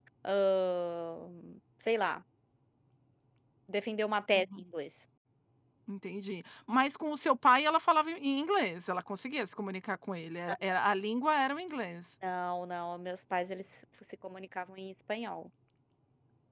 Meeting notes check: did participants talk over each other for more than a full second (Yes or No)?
No